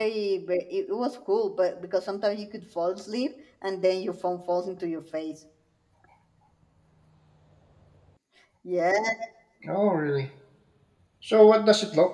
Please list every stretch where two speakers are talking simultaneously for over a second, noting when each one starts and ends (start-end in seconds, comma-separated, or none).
none